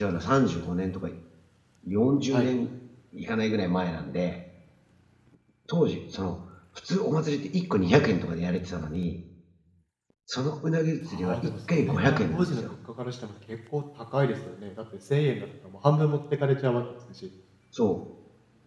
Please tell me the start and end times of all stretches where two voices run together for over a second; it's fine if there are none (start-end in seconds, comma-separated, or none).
11.1-12.6